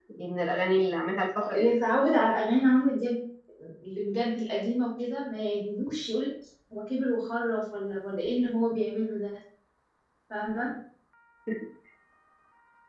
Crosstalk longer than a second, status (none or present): none